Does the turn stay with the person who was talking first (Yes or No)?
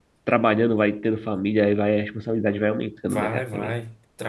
No